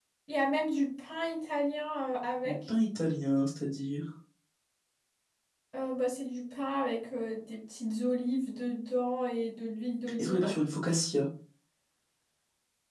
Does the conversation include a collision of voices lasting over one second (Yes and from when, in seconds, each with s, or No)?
No